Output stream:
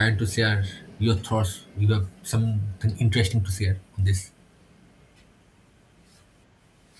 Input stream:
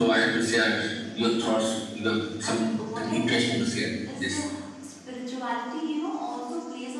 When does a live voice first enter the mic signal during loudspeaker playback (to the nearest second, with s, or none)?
2 s